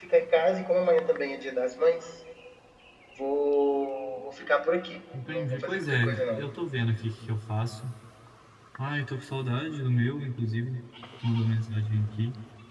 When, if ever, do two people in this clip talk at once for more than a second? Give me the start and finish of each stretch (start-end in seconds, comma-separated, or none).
5.2-6.4